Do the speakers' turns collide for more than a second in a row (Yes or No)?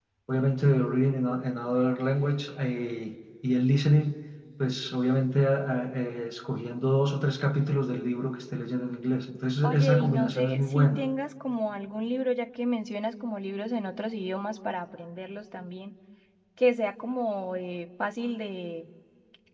Yes